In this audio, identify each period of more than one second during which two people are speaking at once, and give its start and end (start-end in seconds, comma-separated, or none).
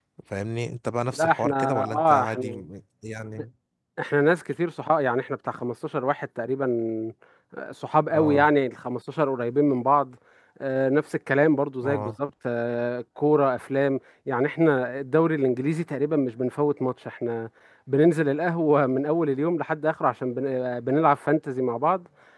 1.1-2.6